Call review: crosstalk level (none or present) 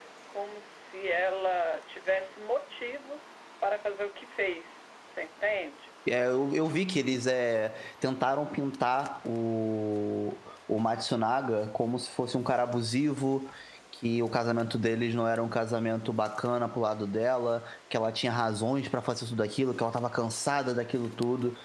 none